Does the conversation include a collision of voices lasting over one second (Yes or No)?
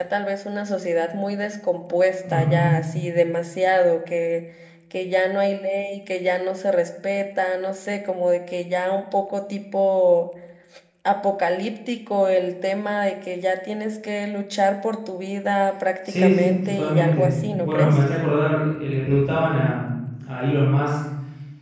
Yes